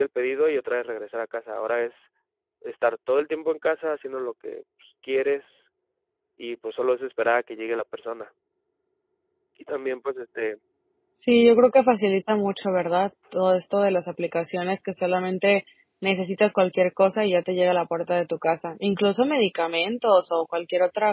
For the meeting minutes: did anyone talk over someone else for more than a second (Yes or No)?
No